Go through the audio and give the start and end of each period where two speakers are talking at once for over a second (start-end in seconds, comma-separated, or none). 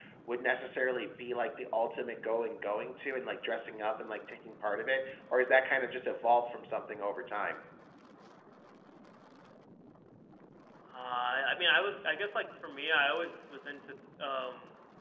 none